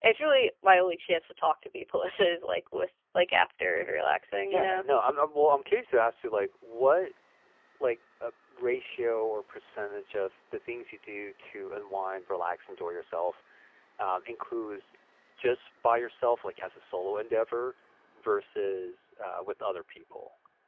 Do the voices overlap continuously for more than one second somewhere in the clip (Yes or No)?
No